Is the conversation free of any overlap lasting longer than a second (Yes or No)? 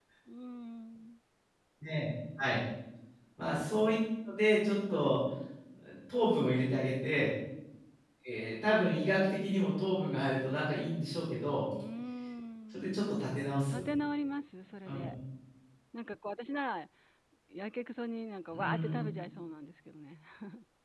Yes